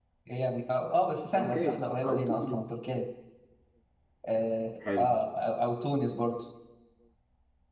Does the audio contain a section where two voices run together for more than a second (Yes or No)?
Yes